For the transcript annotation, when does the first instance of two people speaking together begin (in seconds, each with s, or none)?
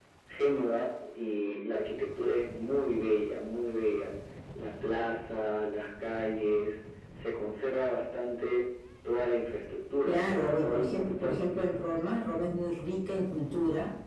10.1 s